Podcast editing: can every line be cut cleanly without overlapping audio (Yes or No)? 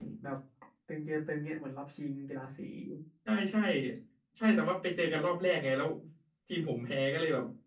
Yes